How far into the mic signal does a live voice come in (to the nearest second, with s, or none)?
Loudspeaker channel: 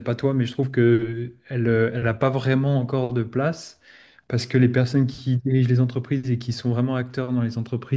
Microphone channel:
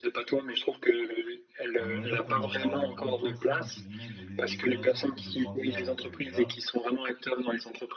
2 s